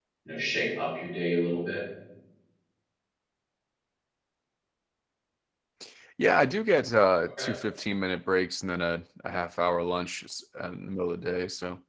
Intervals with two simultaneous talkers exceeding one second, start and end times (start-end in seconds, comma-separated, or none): none